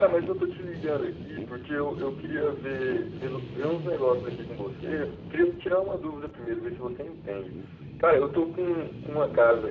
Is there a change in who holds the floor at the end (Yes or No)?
No